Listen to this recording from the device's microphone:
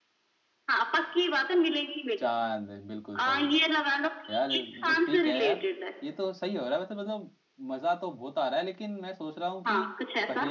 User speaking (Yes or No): Yes